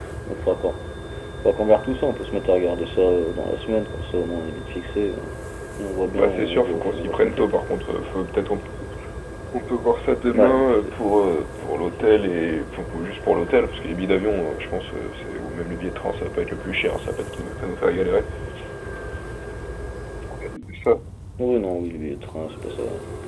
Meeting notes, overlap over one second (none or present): present